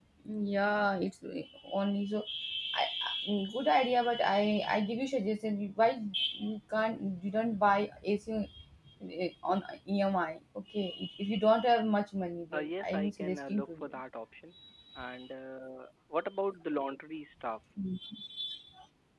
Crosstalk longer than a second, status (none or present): present